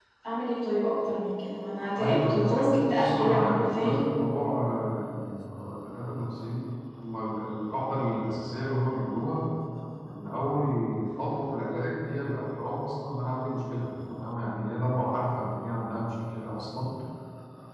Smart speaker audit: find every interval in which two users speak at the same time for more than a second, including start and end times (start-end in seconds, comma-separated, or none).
2.0-4.0